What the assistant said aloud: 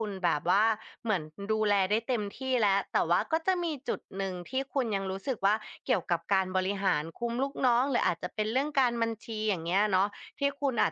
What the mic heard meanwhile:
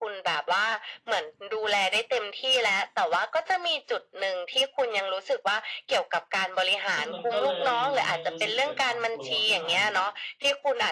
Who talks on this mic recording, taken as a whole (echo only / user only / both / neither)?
both